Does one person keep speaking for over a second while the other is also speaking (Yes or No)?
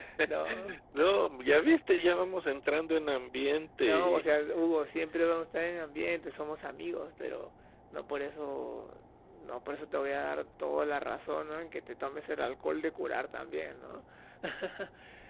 No